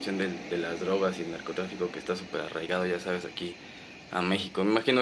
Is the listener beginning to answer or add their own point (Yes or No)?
No